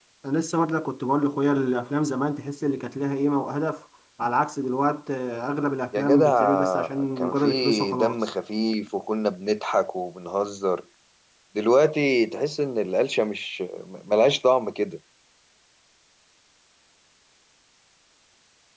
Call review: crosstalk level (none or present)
present